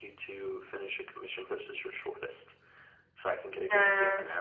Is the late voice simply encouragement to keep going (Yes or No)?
No